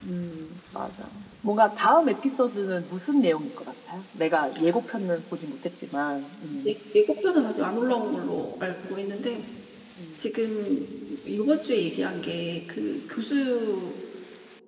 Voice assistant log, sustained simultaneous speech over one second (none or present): none